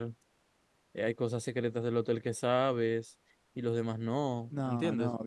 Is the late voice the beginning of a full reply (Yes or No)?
Yes